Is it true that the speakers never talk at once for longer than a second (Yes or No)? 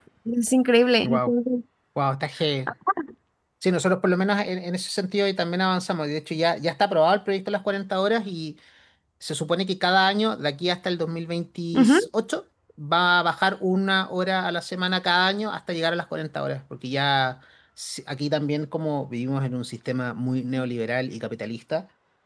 Yes